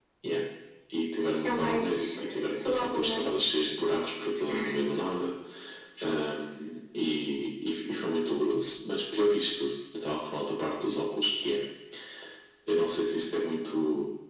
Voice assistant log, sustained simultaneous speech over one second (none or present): present